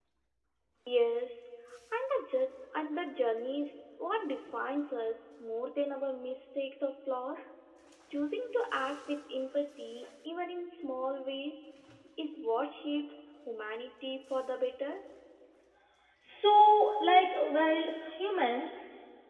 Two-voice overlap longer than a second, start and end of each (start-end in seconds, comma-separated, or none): none